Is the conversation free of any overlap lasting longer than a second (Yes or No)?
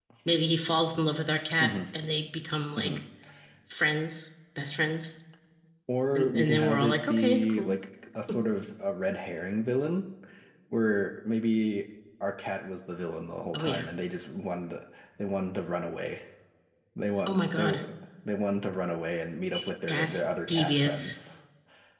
No